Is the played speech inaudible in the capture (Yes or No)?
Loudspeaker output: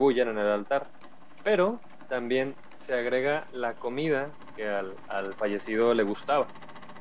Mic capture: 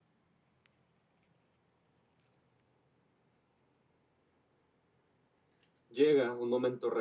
Yes